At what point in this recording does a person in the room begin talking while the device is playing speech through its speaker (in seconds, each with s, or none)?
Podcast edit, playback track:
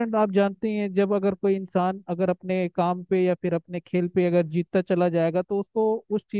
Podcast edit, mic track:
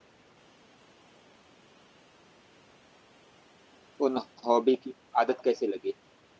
4.1 s